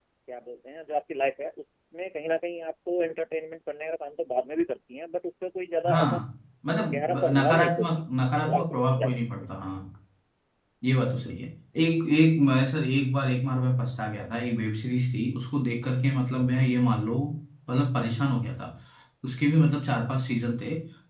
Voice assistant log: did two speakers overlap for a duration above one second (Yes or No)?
Yes